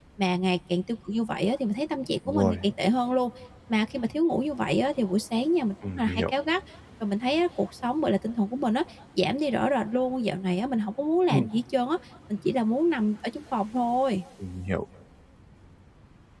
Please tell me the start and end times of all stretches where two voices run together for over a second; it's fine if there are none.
none

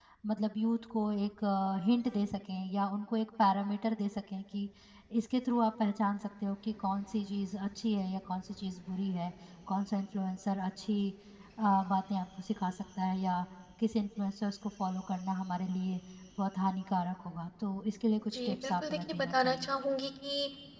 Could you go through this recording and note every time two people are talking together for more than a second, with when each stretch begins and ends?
18.3-19.7

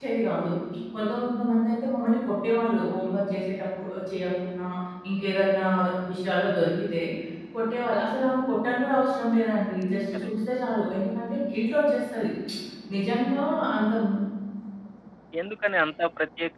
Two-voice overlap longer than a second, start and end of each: none

